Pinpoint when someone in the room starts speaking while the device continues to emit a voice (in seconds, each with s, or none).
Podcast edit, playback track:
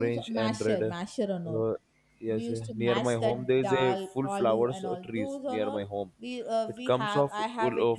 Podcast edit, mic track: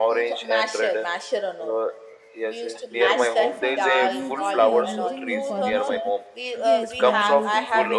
2.9 s